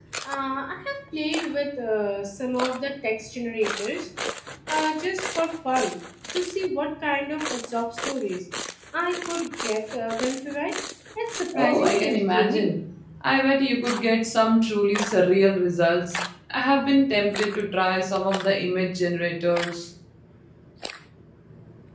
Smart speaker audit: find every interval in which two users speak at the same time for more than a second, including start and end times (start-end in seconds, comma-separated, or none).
11.6-12.8